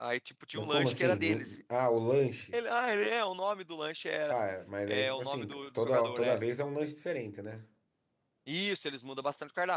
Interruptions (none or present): present